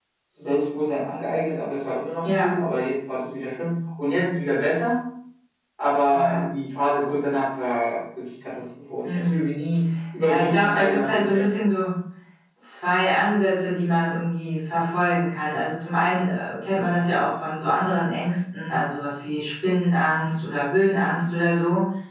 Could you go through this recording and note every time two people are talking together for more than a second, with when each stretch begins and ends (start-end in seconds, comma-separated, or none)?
10.2-11.4